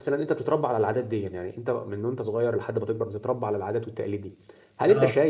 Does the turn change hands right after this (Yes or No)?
No